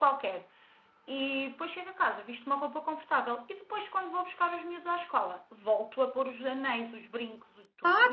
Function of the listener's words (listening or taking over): taking over